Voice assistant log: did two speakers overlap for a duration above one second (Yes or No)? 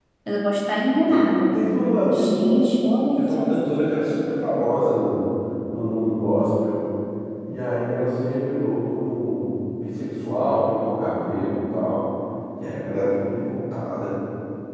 No